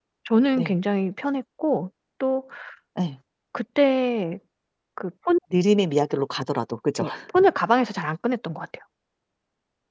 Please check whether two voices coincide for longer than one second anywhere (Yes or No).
No